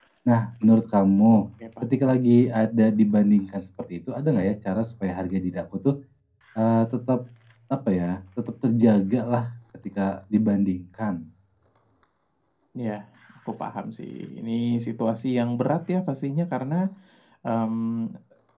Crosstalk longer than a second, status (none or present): none